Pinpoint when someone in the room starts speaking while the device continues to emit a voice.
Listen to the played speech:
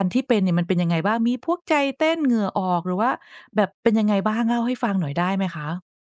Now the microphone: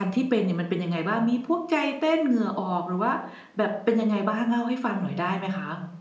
none

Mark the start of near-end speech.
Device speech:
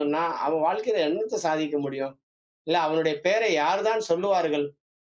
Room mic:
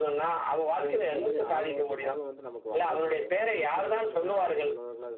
0.8 s

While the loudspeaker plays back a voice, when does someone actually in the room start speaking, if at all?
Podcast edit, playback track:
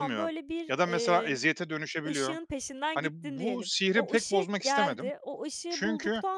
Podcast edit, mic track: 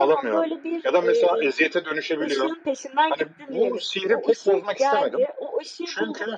none

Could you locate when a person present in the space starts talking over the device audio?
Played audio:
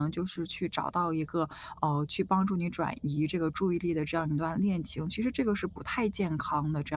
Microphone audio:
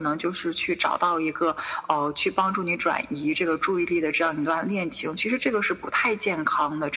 none

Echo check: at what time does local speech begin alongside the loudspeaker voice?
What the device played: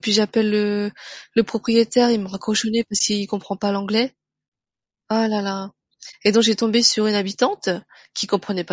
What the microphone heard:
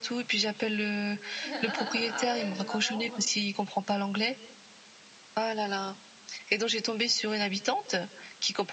1.4 s

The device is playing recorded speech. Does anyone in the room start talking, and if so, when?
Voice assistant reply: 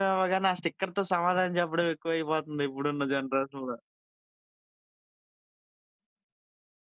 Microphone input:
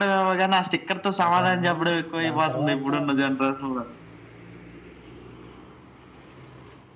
1.2 s

